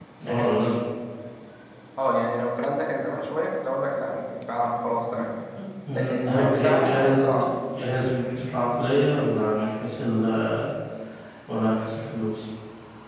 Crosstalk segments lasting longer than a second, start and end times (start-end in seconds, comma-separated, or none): 5.9-7.5